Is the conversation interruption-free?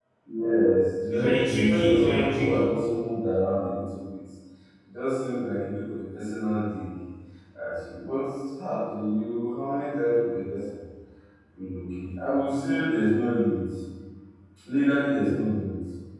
No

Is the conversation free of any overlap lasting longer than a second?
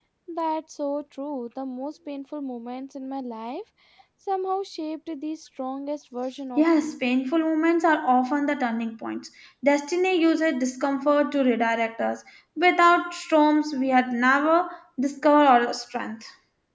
Yes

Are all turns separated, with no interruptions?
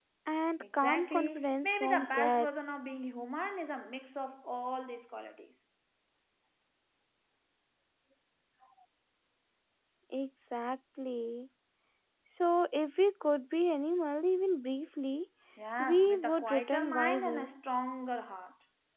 No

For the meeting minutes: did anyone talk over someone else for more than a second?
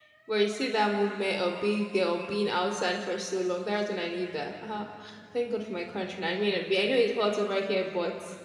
No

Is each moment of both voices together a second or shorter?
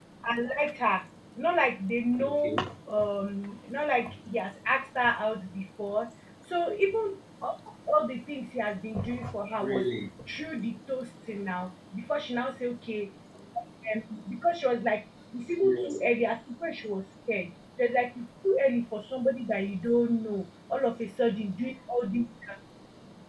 Yes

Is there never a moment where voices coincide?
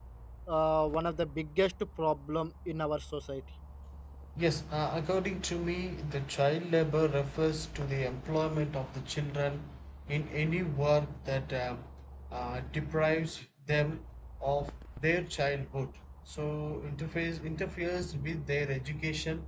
Yes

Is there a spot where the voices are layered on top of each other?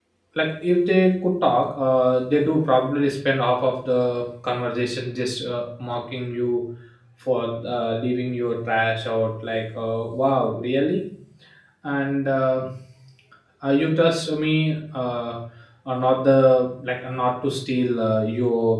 No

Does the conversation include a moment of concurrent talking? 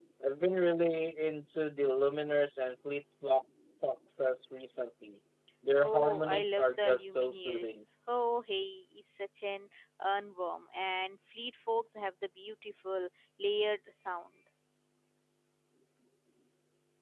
Yes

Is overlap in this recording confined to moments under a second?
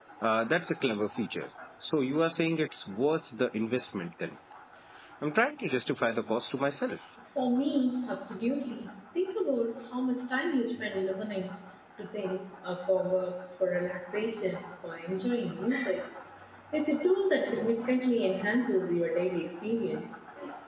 Yes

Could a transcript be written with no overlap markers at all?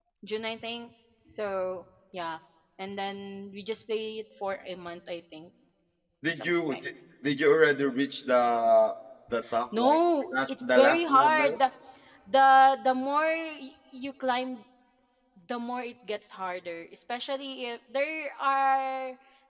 No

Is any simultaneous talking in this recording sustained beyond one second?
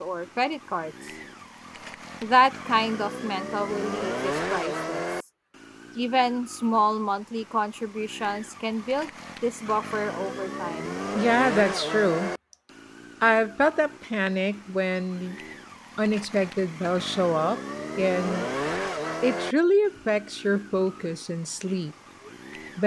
No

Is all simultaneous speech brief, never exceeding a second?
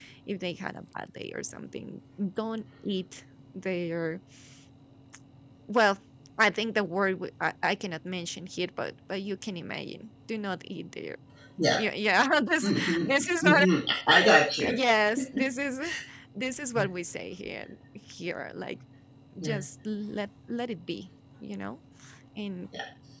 Yes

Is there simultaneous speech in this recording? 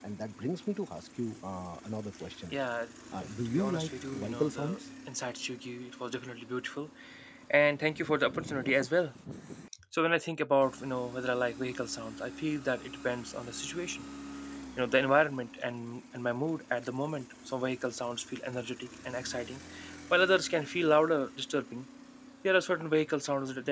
Yes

